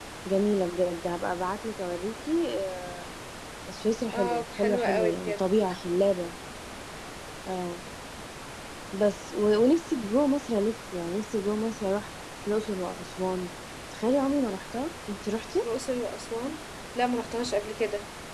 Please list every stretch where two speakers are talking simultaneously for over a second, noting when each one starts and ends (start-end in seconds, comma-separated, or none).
4.1-5.4